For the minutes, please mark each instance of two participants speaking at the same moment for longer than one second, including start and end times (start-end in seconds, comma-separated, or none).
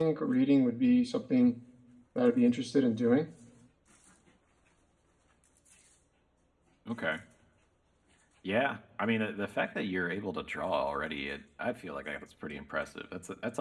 none